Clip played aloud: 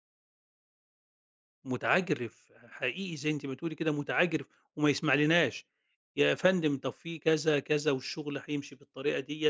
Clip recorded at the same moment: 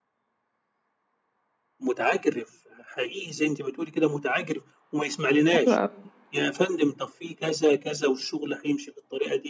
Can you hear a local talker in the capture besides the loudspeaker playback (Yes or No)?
Yes